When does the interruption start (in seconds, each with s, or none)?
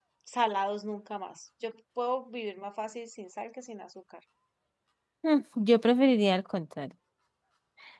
none